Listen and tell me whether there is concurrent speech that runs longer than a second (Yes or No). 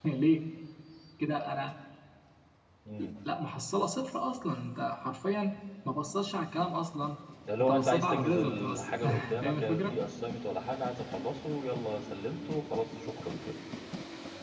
Yes